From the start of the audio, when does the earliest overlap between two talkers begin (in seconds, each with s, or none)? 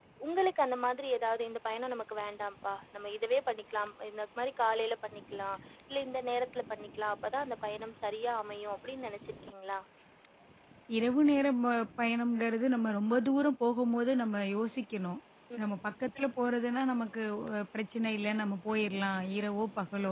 none